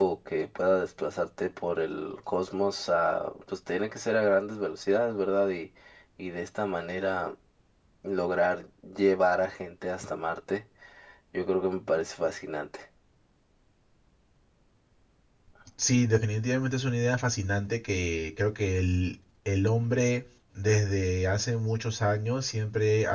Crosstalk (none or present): none